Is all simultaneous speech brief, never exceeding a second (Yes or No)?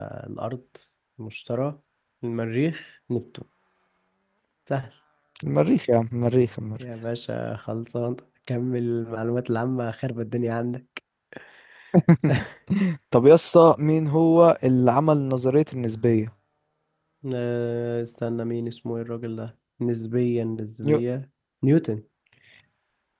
Yes